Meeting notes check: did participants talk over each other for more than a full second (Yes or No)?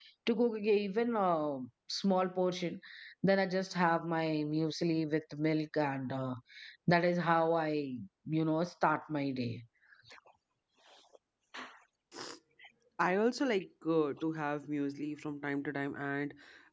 No